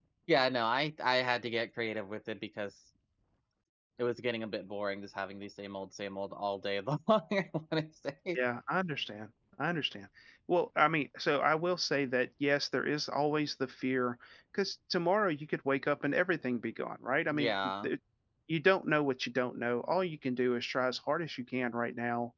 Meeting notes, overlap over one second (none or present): none